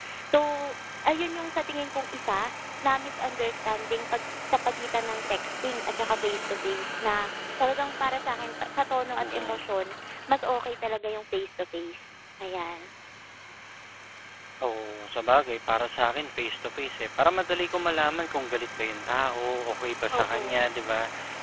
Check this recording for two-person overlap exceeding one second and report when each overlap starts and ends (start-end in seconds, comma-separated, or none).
none